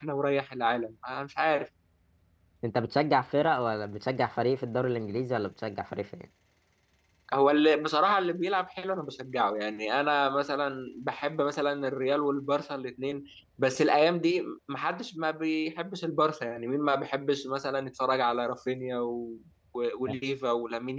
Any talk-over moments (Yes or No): No